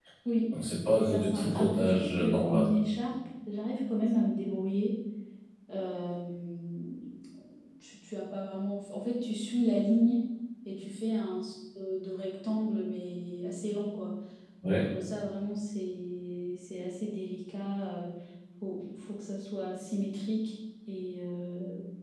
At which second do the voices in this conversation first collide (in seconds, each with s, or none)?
1.0 s